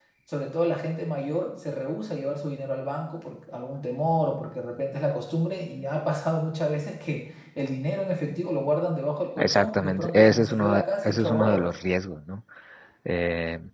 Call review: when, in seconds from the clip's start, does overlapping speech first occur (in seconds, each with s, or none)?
9.4 s